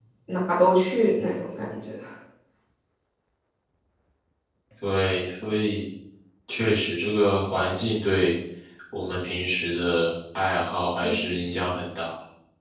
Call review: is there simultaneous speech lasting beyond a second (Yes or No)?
No